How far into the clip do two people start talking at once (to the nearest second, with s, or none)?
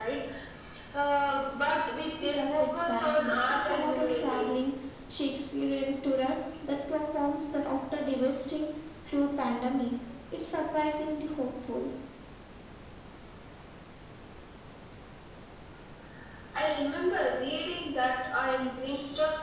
2 s